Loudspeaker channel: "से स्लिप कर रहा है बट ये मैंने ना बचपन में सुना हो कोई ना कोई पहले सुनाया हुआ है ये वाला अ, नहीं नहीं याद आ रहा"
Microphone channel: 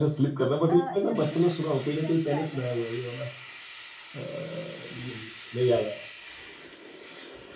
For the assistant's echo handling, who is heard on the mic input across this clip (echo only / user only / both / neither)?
both